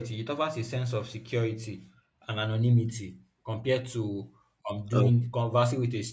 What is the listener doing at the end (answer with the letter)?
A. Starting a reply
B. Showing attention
B